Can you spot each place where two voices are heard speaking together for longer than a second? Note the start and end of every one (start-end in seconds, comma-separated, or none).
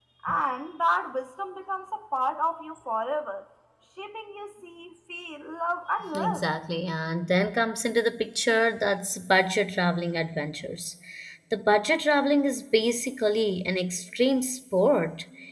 none